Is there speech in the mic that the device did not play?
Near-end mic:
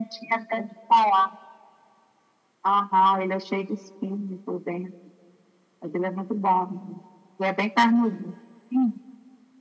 No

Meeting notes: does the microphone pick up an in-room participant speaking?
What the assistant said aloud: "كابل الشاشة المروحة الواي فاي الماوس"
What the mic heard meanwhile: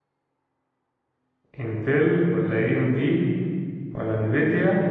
Yes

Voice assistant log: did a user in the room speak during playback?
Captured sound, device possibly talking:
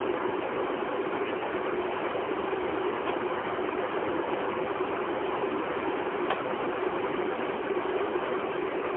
No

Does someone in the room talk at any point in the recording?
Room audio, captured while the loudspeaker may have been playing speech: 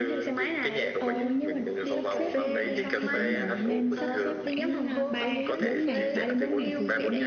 Yes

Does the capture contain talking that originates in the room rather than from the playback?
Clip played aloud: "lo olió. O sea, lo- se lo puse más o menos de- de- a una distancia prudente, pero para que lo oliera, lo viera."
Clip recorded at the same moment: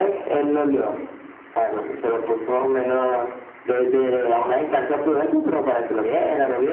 No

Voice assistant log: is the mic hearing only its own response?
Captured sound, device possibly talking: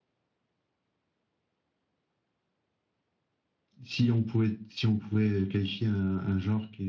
No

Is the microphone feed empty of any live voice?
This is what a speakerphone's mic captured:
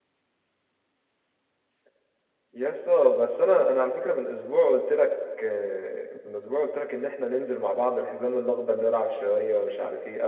Yes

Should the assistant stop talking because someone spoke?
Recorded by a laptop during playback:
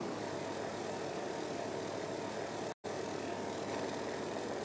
No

